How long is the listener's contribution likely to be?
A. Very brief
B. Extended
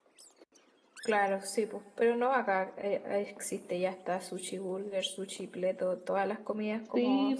B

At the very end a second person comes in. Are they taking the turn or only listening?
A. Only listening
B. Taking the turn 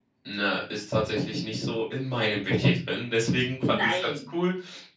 A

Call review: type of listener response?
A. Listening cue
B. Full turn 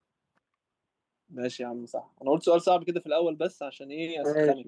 B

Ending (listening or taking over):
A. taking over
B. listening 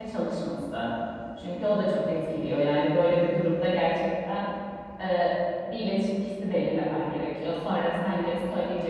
B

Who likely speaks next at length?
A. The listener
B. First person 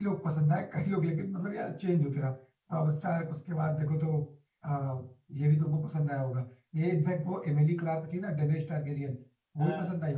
B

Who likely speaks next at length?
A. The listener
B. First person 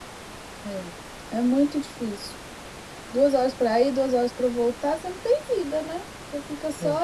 B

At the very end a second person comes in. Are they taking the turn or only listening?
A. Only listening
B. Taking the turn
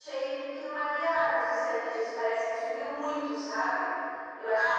B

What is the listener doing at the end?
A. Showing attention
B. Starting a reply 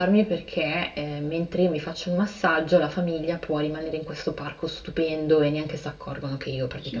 B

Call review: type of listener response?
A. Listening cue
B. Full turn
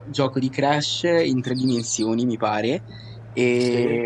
A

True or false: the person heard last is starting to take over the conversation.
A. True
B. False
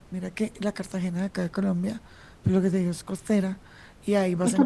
B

